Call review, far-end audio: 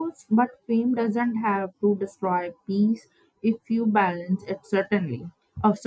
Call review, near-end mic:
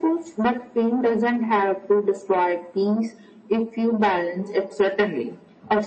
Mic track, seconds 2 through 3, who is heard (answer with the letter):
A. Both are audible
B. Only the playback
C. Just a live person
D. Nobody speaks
B